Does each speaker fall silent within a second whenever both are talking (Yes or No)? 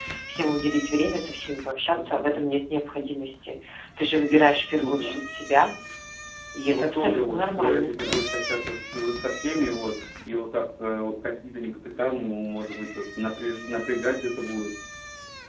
No